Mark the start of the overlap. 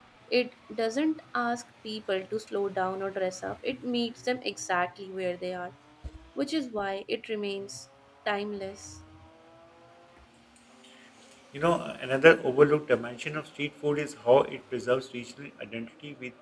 none

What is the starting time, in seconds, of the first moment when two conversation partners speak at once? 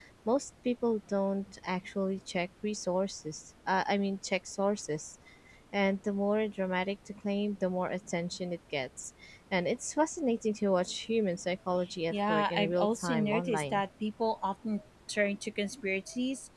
12.1 s

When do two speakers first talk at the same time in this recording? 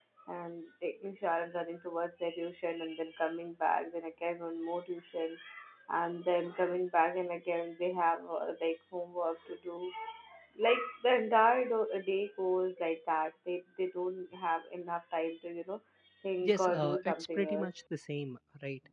16.5 s

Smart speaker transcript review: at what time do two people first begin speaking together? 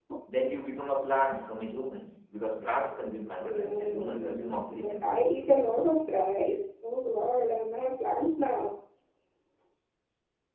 3.4 s

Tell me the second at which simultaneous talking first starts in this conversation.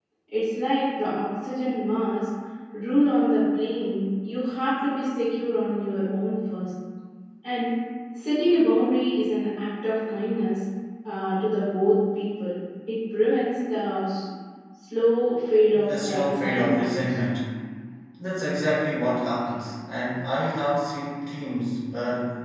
15.7 s

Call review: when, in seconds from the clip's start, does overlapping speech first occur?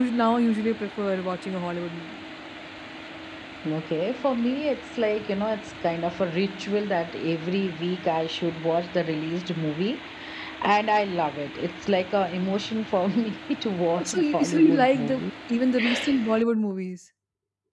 14.0 s

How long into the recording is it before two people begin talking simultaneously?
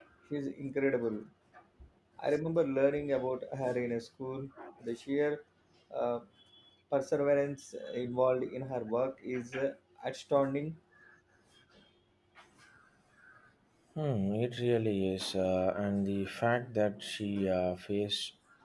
none

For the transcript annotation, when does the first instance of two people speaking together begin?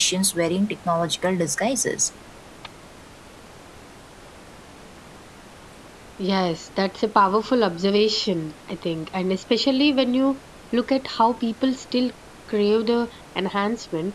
none

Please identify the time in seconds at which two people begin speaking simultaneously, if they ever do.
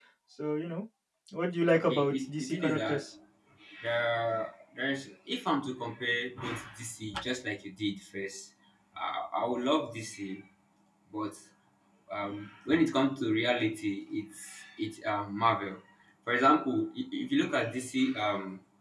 1.7 s

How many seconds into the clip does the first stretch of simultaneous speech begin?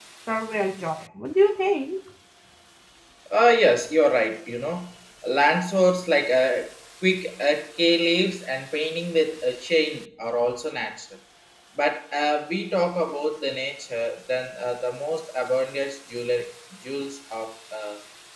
none

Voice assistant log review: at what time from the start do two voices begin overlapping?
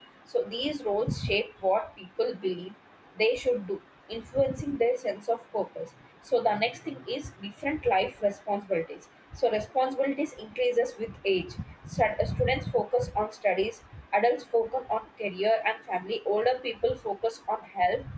none

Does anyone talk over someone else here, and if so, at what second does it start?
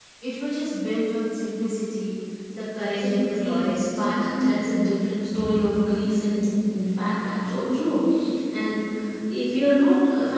2.8 s

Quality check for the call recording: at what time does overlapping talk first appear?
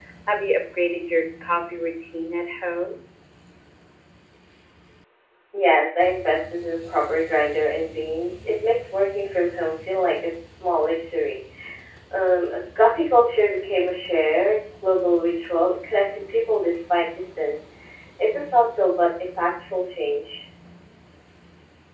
none

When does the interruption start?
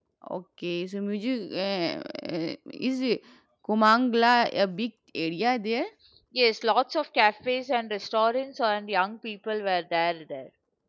none

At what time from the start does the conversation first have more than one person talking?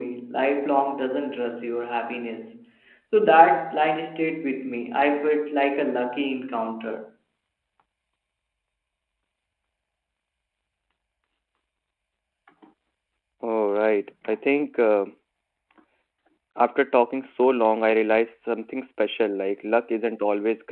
none

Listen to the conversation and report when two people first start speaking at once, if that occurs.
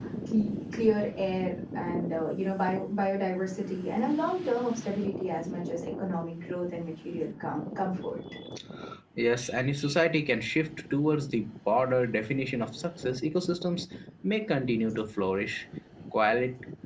none

